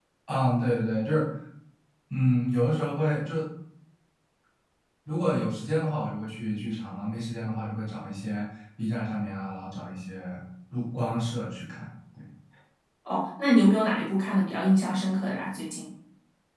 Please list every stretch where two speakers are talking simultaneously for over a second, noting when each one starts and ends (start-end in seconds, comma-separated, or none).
none